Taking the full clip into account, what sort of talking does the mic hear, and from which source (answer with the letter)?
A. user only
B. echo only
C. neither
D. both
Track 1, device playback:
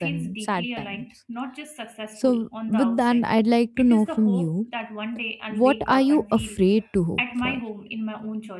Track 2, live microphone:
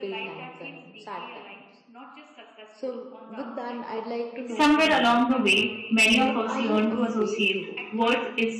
D